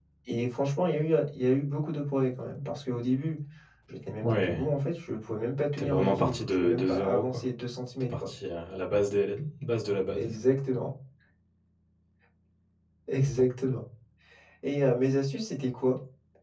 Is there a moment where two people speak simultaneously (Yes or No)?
Yes